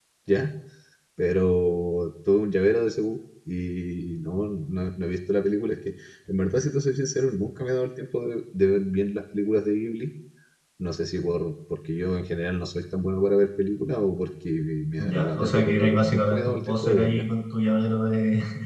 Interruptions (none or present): present